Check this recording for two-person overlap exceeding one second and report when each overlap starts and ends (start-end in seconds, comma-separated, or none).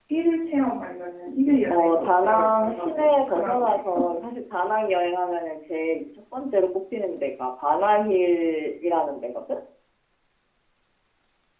1.6-4.0